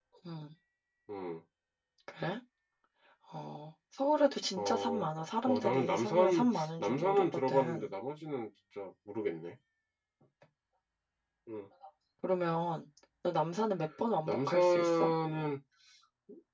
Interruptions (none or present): present